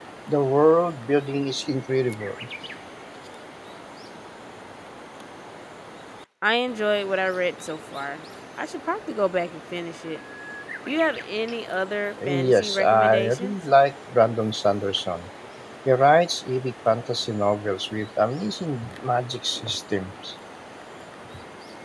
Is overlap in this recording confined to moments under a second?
No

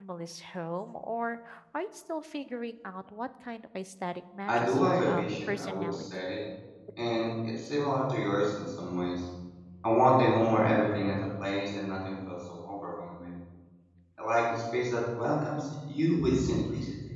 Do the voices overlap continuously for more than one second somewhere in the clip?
Yes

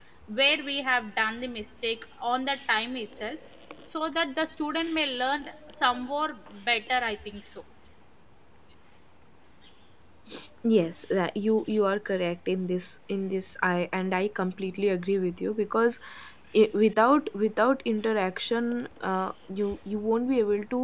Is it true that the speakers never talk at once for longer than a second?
Yes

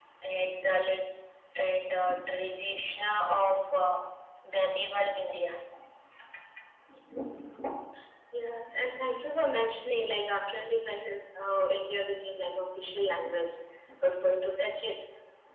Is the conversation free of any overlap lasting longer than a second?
Yes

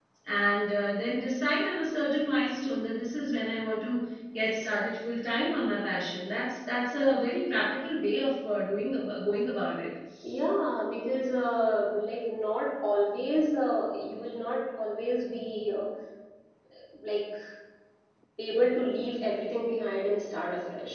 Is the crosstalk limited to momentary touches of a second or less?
Yes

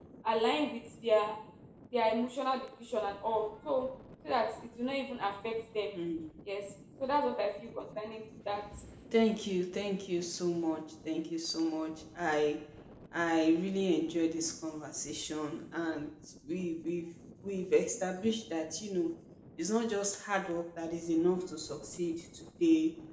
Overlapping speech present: No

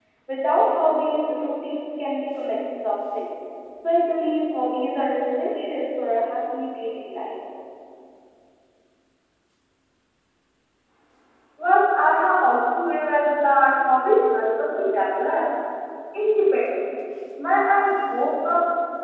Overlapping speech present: No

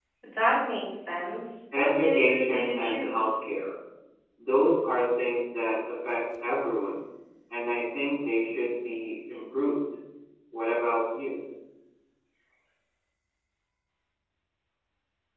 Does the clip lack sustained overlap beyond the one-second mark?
No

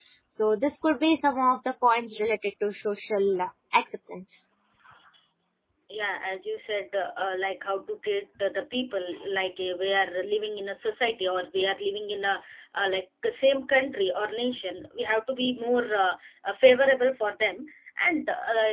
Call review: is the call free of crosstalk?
Yes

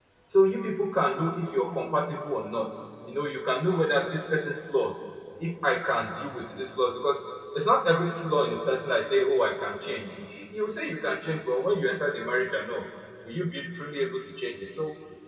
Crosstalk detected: No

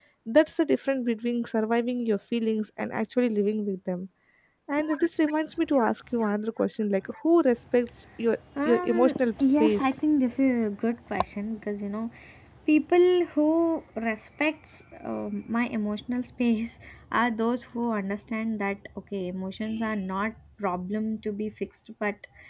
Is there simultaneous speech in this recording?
Yes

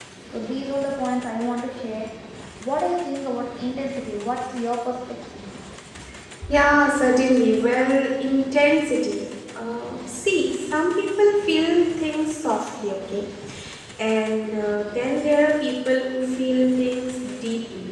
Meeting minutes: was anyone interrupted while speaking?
No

